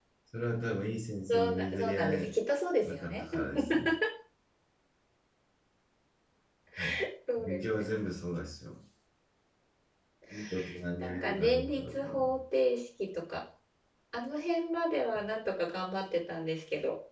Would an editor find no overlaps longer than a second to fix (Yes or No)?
No